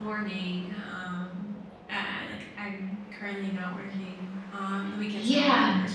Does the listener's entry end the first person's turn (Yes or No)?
Yes